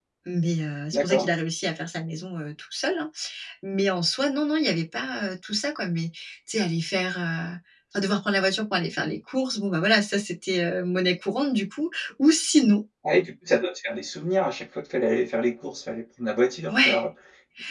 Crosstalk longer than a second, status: none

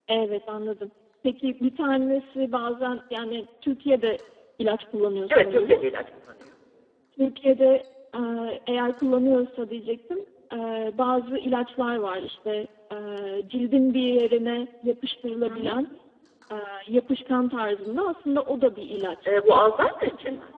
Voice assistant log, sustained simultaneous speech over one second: none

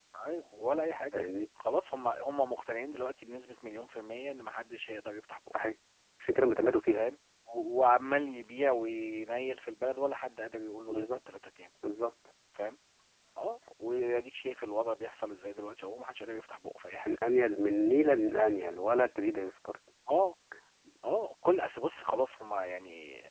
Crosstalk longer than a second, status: none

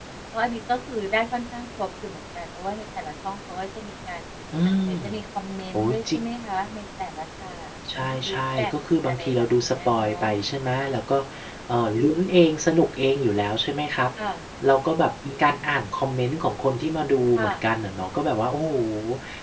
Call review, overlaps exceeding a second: present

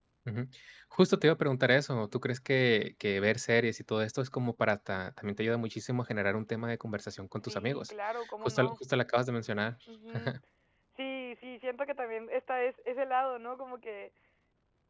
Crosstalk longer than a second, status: none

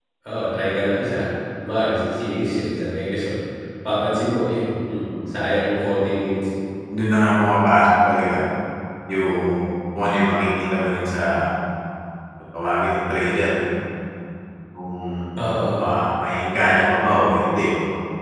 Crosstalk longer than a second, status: none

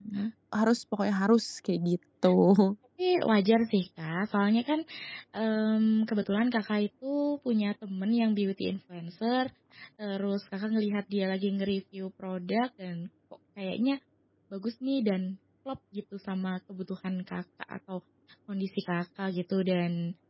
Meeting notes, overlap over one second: none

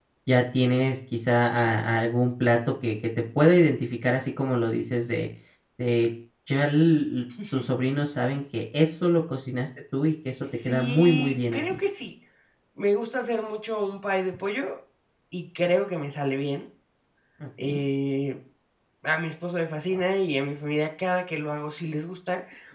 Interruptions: present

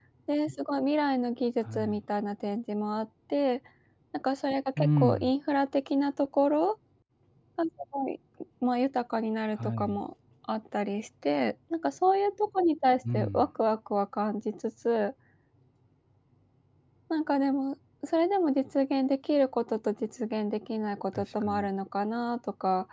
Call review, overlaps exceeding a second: none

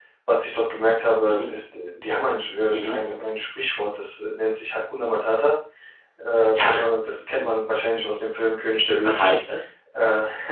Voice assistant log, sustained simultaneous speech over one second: none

